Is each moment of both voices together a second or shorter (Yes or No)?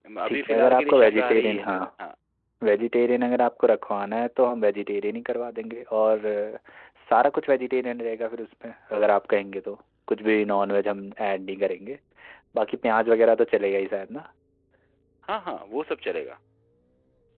No